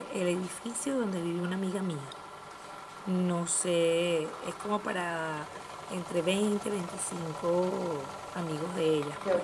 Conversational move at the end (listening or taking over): taking over